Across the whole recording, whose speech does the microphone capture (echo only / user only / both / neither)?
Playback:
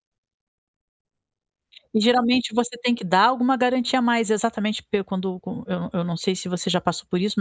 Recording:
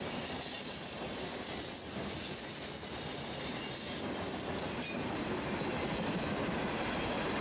neither